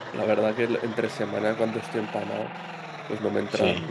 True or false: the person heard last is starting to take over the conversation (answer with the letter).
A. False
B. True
A